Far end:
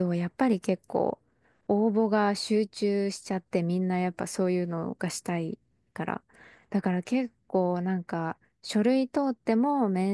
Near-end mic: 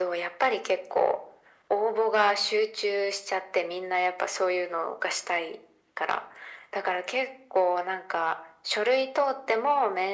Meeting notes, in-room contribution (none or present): none